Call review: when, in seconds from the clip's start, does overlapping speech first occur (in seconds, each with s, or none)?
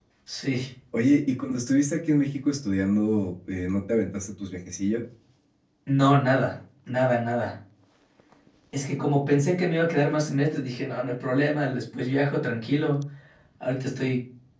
none